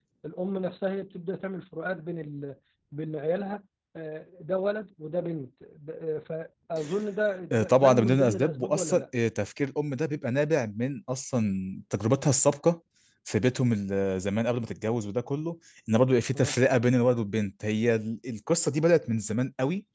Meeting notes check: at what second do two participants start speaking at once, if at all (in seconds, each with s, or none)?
7.5 s